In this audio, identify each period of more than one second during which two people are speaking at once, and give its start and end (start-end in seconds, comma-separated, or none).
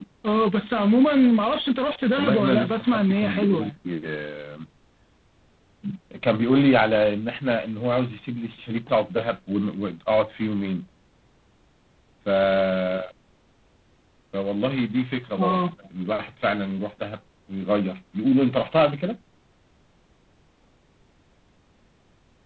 2.2-3.7